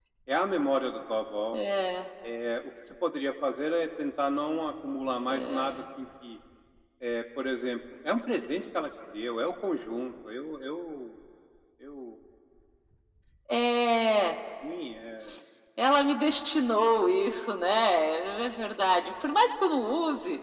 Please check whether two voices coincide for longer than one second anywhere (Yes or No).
No